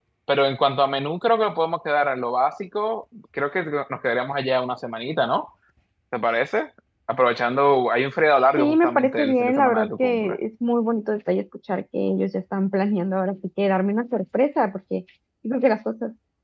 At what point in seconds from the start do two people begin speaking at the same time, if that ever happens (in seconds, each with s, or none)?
8.6 s